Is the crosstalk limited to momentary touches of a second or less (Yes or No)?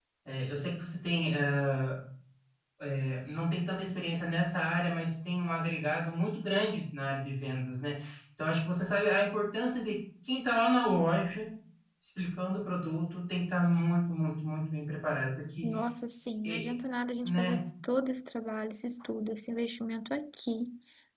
Yes